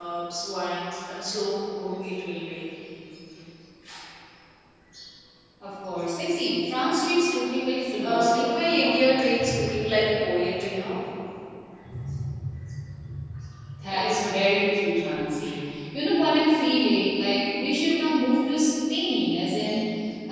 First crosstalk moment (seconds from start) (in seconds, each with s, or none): 8.0 s